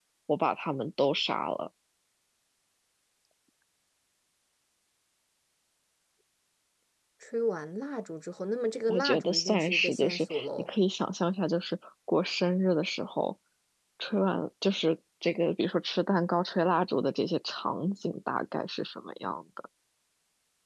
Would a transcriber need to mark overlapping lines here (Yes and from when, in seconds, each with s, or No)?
Yes, from 8.9 s